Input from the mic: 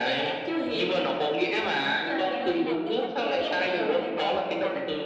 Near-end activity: present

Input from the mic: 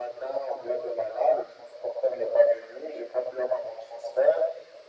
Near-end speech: none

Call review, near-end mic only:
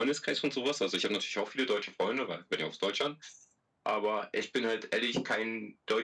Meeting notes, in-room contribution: none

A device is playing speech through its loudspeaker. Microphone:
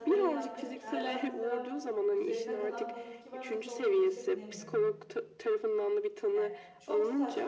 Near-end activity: present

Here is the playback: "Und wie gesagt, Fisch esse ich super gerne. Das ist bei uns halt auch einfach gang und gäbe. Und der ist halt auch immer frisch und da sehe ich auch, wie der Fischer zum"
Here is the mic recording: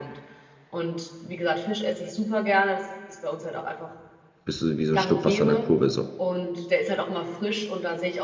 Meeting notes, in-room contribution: present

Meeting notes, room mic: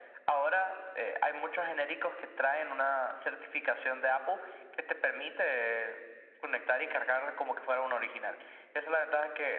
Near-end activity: none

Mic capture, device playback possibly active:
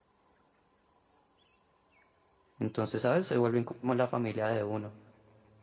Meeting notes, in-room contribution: present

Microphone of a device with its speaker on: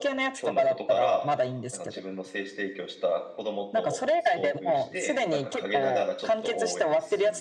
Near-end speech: present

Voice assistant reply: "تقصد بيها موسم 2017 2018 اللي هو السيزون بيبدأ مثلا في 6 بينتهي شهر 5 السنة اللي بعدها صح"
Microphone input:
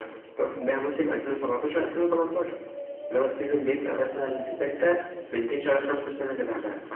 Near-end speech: none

